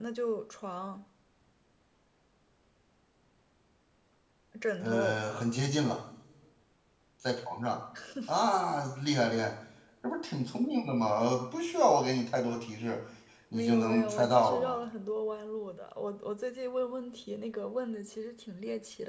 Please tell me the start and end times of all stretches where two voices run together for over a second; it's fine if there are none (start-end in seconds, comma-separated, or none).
13.5-14.8